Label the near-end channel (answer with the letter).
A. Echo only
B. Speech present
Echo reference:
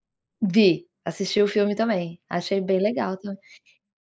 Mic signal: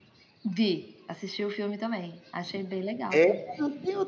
B